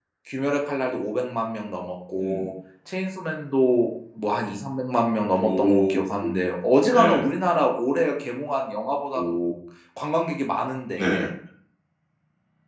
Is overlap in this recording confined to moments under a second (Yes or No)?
Yes